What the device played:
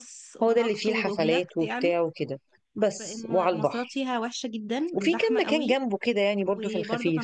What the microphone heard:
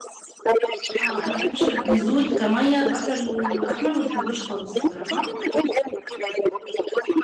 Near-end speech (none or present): present